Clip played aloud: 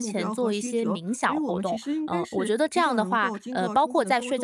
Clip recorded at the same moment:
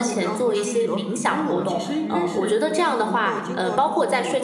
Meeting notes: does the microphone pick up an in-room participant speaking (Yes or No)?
Yes